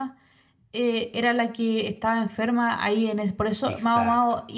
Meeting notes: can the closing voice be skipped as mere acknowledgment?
Yes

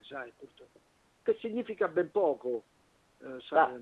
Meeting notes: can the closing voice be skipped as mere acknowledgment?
Yes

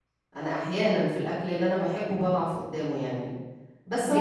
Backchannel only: Yes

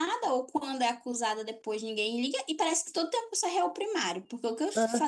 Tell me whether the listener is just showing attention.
Yes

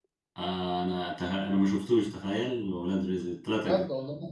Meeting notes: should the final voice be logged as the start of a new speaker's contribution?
Yes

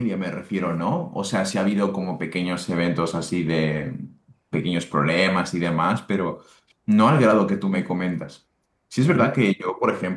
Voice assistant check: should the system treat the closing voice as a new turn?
No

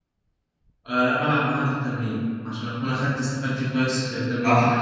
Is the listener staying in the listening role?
No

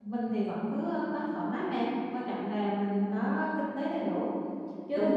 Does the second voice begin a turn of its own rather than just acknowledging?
Yes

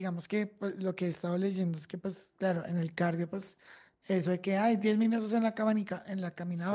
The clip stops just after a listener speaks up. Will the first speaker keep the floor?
Yes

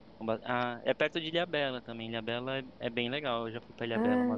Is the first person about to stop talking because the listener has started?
Yes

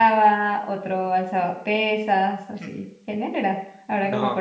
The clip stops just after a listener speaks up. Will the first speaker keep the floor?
Yes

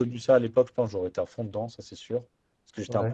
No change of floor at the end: Yes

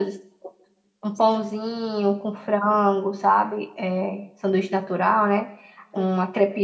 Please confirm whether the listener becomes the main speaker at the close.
No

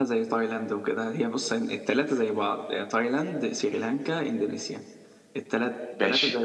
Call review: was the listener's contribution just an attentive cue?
Yes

